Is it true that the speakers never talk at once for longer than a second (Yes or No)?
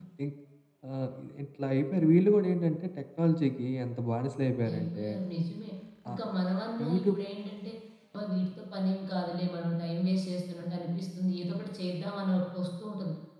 Yes